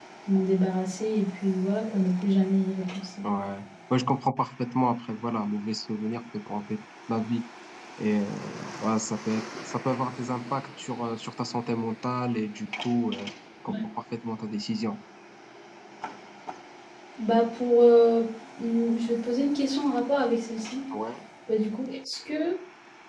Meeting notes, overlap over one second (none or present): none